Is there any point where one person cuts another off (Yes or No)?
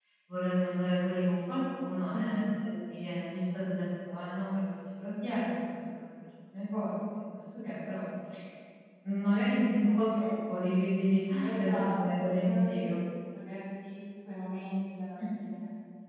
Yes